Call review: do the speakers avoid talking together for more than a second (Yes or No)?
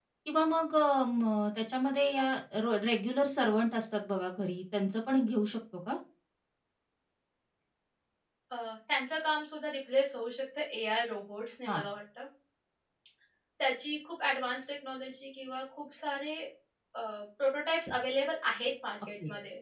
Yes